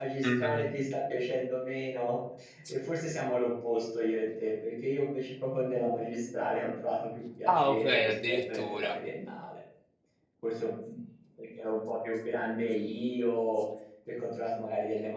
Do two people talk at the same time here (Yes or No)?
Yes